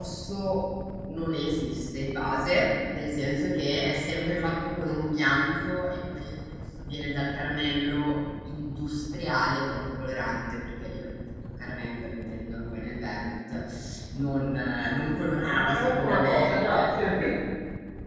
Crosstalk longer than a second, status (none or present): present